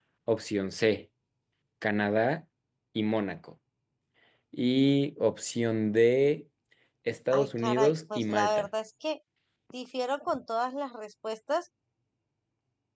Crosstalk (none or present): present